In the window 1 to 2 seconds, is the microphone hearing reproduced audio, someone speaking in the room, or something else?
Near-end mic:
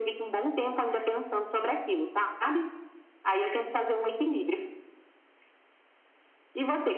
echo only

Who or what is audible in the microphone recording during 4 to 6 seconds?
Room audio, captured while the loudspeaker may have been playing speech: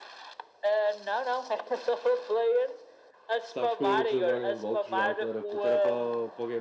both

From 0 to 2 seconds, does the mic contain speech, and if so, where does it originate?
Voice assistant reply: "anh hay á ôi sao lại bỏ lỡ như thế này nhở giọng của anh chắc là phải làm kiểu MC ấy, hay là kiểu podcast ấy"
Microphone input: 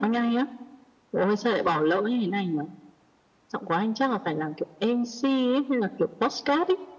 echo only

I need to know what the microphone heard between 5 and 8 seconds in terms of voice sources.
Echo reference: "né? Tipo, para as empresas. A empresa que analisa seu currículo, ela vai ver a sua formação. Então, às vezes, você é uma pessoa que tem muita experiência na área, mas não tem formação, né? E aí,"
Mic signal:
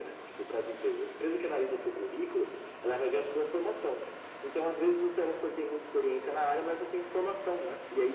echo only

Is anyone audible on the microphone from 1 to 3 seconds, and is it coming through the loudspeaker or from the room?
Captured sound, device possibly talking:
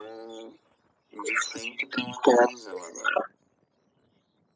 echo only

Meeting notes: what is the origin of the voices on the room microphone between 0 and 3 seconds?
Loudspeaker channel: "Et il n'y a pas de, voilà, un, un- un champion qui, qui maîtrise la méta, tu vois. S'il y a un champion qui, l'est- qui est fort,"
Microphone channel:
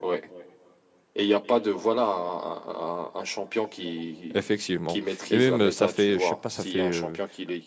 echo only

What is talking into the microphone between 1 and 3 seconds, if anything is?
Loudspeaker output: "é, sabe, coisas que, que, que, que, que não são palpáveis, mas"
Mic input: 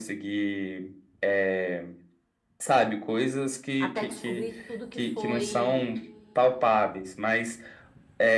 echo only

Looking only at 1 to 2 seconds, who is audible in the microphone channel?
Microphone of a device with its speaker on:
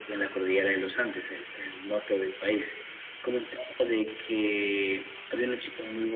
echo only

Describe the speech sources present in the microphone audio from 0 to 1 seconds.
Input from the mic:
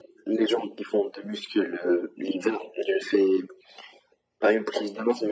echo only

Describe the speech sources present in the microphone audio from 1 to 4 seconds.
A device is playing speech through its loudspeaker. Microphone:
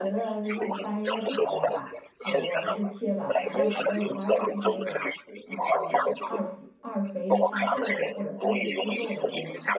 both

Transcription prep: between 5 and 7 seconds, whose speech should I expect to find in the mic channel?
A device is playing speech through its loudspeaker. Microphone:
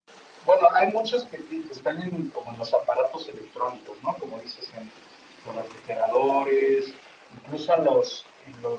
echo only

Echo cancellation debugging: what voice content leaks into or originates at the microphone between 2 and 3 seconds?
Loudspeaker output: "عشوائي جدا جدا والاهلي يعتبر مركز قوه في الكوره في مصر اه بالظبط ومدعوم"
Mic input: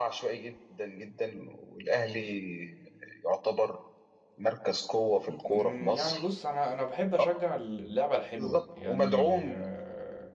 echo only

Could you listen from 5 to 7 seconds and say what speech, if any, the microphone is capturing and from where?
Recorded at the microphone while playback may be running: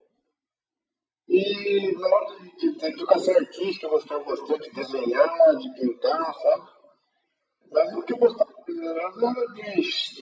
echo only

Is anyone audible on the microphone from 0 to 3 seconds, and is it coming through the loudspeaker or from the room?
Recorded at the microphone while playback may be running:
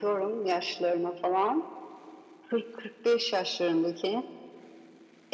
echo only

